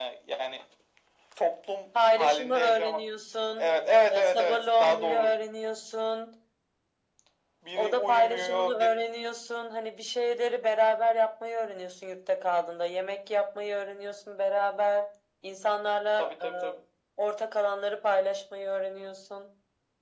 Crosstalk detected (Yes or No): Yes